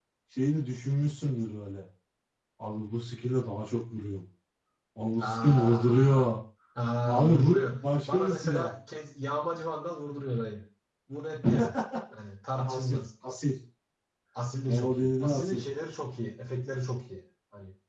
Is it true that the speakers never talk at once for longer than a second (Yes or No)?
No